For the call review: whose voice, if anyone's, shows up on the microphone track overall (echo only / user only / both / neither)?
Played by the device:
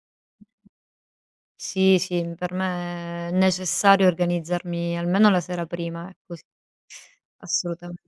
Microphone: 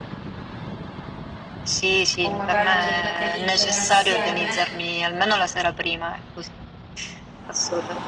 both